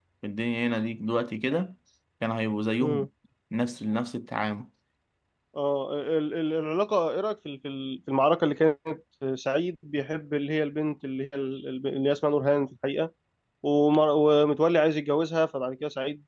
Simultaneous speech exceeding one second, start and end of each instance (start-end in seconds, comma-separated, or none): none